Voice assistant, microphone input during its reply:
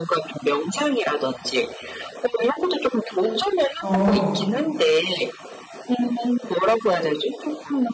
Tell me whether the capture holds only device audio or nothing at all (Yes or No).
No